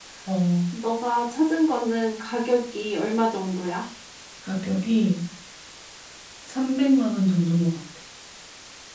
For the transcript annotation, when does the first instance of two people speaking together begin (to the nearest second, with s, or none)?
none